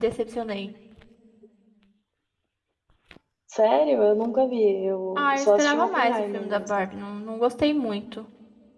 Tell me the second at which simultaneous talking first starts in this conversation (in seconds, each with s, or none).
5.2 s